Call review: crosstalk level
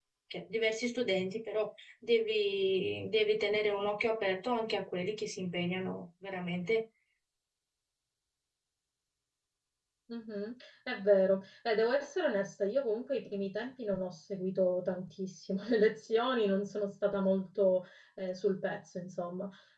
none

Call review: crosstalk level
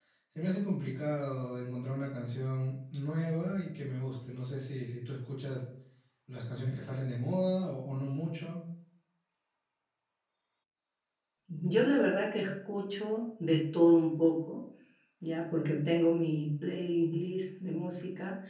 none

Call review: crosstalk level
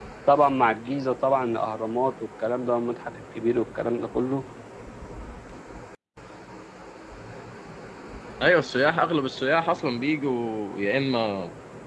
none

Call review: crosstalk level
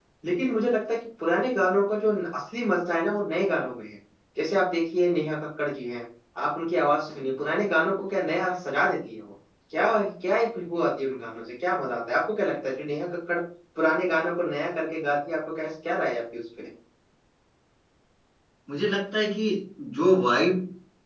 none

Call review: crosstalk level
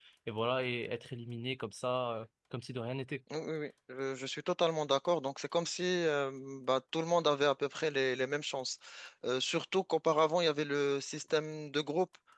none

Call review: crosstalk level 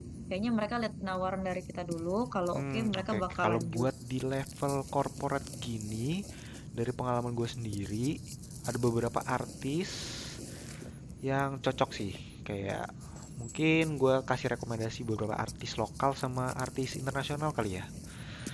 present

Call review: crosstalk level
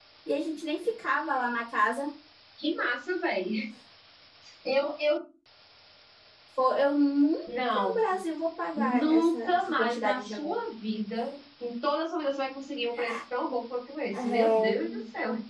present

